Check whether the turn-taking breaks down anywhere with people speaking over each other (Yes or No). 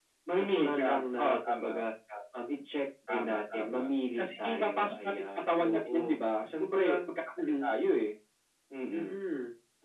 Yes